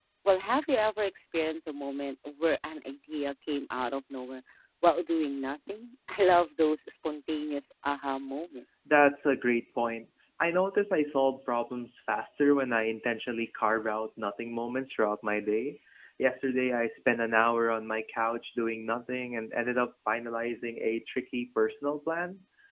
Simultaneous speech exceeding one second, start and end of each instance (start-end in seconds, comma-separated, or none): none